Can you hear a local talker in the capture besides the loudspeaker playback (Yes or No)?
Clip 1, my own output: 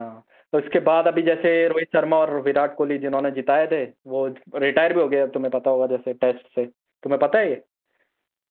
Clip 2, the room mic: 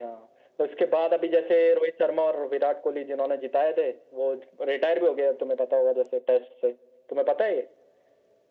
No